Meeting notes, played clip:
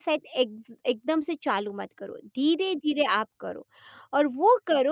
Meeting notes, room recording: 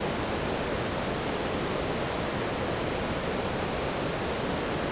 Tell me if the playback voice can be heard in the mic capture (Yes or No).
No